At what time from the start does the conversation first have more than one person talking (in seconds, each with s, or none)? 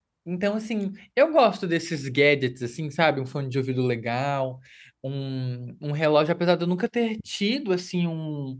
none